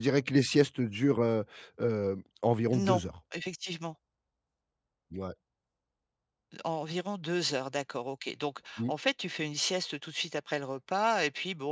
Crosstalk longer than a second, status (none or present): none